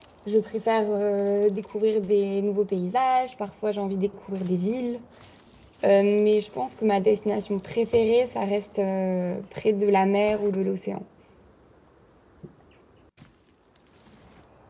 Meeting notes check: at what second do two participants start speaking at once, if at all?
none

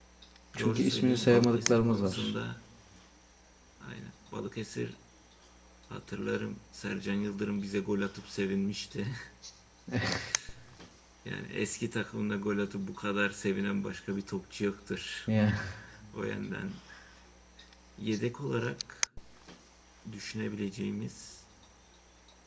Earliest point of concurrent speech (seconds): 0.6 s

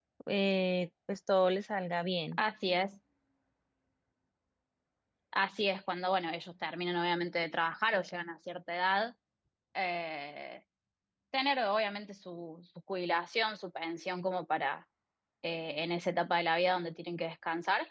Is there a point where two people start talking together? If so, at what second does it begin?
none

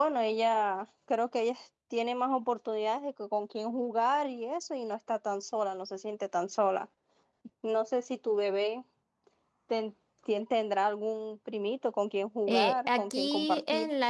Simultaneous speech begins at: 12.5 s

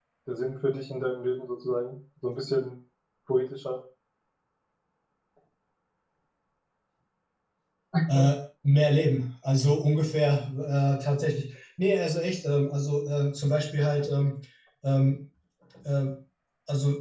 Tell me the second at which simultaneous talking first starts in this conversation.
none

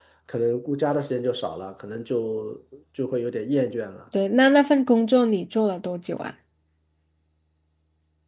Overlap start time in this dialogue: none

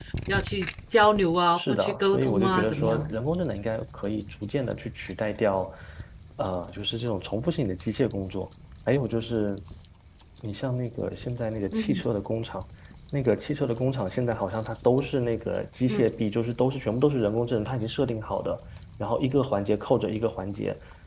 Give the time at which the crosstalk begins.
1.6 s

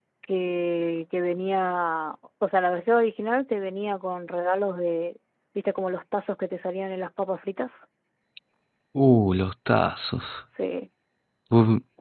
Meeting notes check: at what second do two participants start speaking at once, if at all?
none

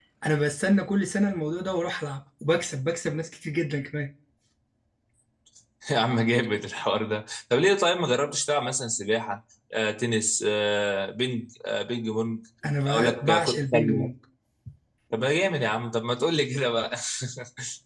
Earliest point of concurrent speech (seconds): 12.9 s

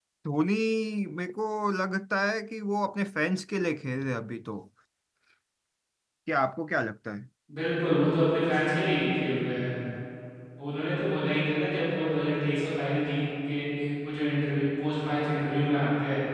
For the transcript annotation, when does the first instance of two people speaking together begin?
none

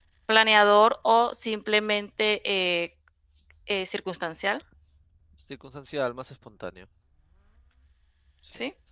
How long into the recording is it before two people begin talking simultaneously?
none

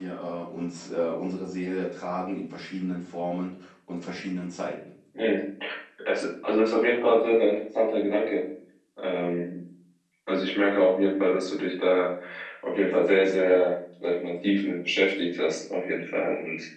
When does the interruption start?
none

